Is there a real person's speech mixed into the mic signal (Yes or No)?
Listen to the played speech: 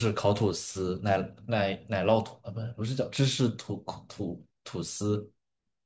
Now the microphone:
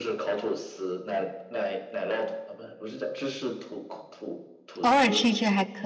Yes